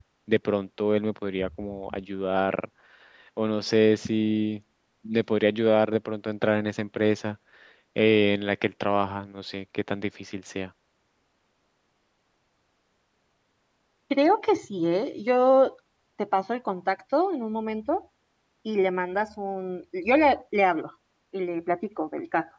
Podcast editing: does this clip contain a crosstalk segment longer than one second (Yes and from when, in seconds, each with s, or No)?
No